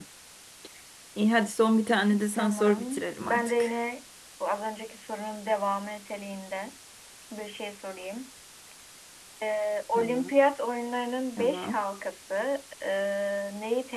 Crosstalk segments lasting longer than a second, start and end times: 2.3-3.7

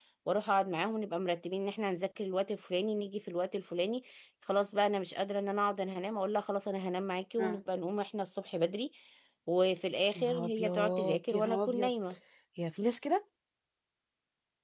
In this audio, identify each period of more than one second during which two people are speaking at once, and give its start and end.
10.2-11.9

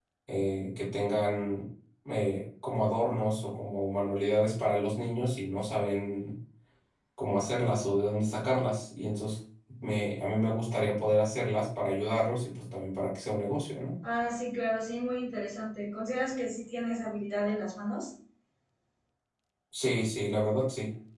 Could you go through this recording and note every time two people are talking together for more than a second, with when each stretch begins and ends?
none

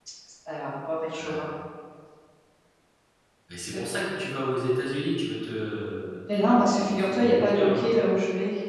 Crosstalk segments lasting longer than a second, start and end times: 6.4-7.9

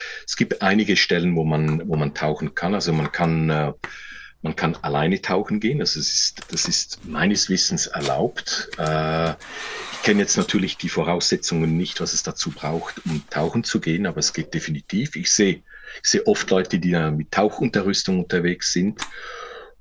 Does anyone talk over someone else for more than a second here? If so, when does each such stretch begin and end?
none

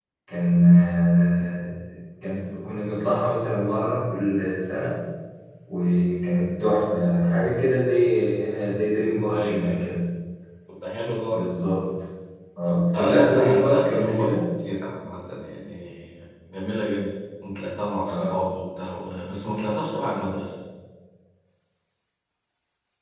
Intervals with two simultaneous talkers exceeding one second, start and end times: 12.9-14.3

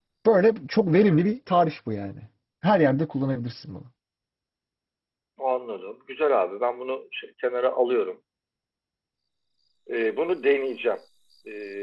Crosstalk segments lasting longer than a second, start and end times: none

